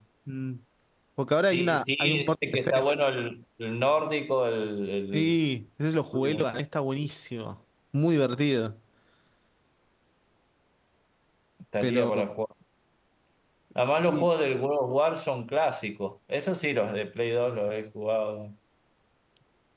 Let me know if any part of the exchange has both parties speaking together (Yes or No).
Yes